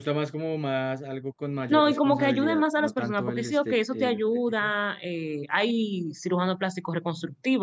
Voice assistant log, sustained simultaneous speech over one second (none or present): present